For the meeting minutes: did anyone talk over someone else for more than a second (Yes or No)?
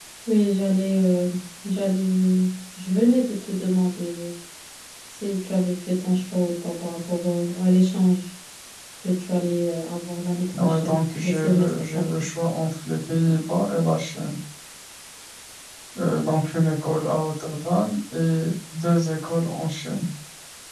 Yes